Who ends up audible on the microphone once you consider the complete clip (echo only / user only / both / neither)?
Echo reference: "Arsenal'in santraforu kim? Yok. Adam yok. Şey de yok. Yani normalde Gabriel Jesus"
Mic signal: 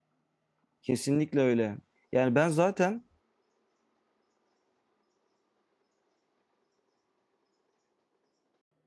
user only